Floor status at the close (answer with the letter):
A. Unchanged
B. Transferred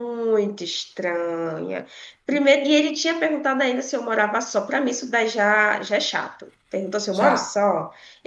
A